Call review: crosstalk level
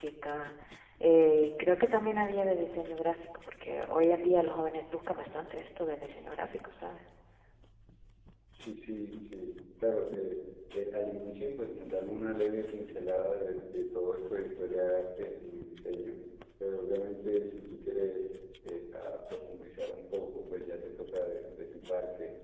none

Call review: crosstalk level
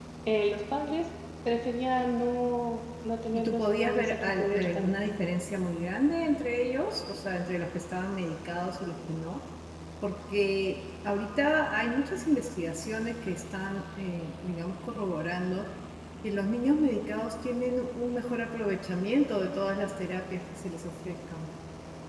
present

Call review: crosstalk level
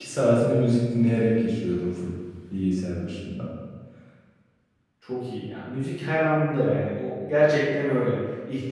none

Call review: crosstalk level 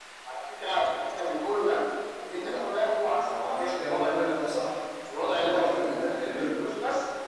present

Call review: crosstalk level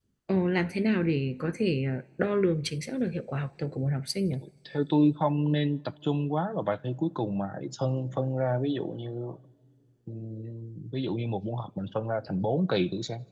none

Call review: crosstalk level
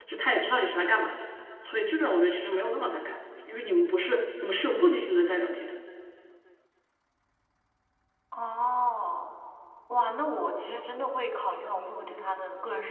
none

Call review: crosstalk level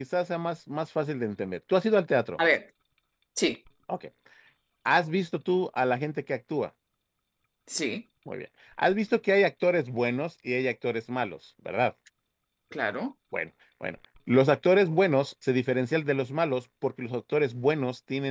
none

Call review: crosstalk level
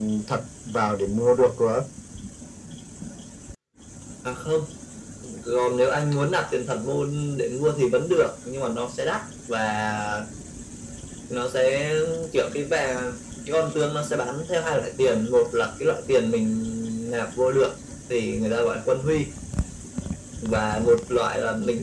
none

